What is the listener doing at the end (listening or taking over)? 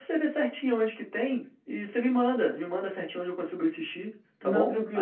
taking over